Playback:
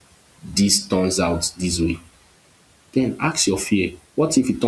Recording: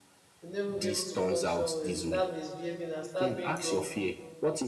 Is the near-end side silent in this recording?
No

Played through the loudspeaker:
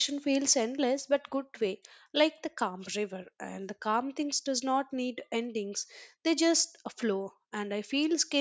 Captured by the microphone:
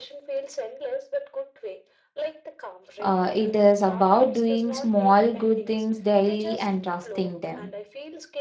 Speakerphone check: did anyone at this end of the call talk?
Yes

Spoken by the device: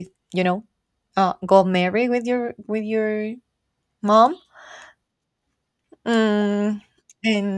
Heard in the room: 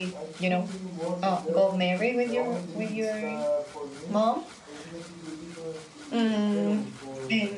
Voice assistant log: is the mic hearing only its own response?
No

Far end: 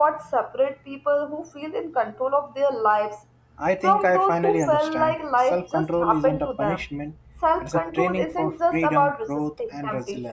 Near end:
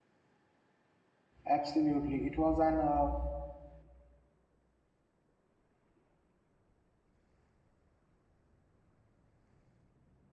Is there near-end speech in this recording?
Yes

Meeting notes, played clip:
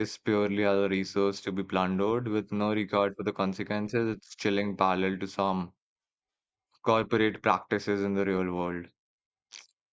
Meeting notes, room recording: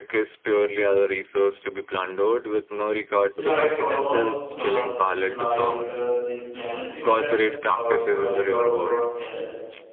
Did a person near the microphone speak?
Yes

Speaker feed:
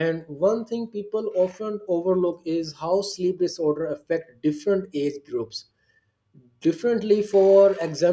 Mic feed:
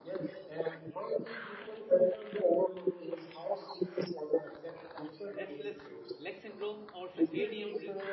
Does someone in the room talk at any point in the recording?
Yes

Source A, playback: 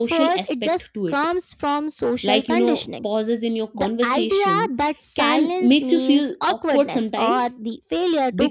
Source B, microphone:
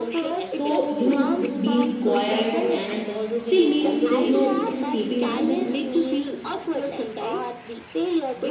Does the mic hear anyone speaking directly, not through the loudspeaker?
Yes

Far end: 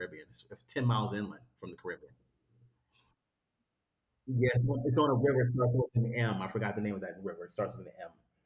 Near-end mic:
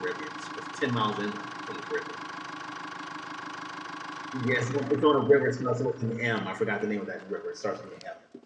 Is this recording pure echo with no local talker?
Yes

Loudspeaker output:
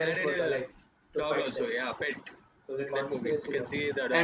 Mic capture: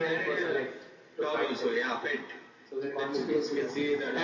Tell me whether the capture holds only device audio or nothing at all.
Yes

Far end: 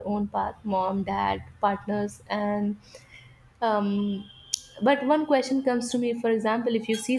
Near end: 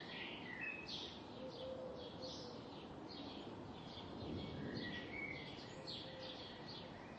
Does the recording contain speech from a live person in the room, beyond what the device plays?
No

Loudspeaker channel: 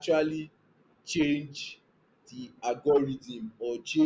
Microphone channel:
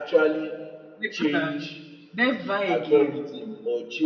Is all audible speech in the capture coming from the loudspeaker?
No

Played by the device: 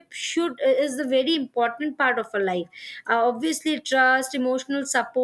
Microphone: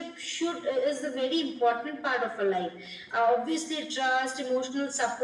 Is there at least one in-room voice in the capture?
No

